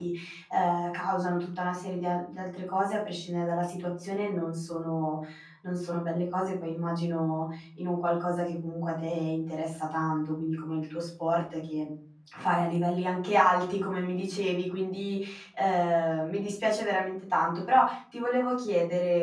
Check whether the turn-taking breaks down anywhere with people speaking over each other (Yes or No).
No